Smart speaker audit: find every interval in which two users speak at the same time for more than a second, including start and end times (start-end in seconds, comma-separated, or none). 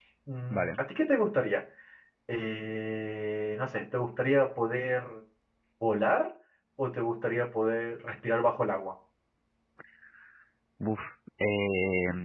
none